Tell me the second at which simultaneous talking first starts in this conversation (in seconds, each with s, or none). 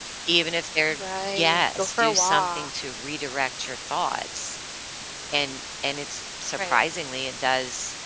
1.4 s